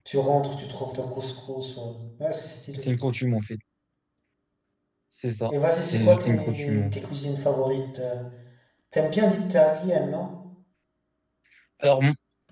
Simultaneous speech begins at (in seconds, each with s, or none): 5.5 s